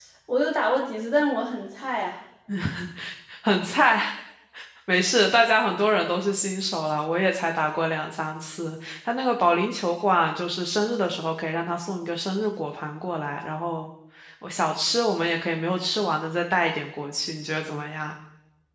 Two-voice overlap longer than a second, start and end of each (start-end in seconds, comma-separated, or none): none